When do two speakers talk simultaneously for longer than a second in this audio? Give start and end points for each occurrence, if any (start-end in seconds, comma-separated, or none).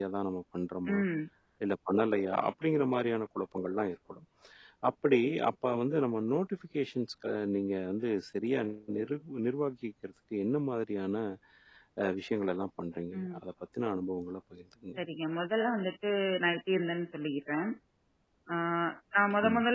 none